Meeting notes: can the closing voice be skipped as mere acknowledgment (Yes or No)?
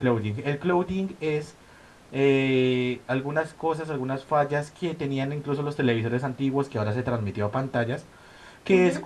Yes